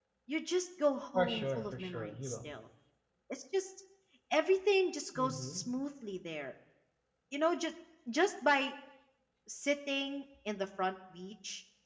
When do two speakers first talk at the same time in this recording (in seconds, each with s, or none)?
1.1 s